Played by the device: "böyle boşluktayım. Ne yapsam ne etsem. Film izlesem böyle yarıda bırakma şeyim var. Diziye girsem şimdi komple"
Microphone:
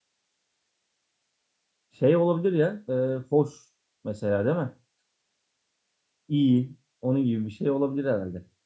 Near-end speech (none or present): present